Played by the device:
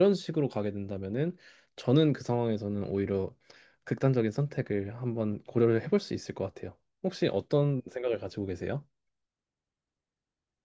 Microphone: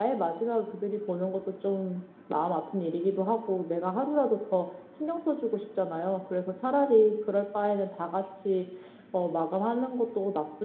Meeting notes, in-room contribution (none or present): present